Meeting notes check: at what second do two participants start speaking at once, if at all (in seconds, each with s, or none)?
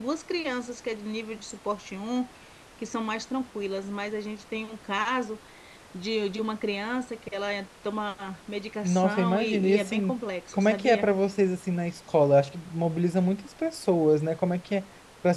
8.8 s